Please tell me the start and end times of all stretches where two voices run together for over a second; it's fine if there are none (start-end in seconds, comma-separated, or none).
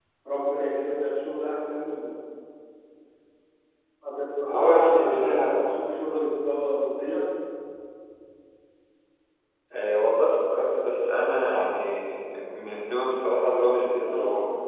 4.5-5.7